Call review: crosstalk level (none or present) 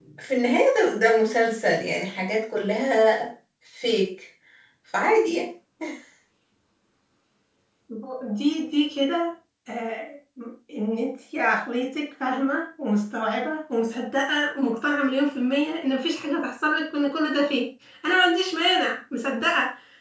none